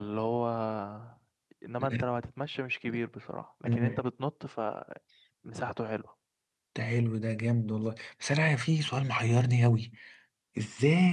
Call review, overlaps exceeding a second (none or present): none